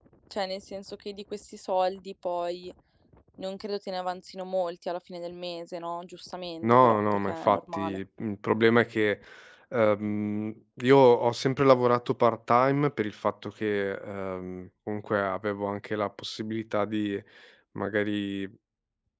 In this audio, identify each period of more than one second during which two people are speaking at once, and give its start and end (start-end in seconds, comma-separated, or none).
6.6-8.0